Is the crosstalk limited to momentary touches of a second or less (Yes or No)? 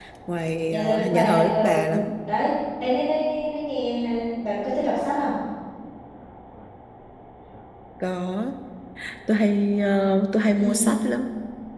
No